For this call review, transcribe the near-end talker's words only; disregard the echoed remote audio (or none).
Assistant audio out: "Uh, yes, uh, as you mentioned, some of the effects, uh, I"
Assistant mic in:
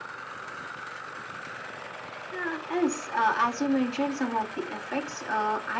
none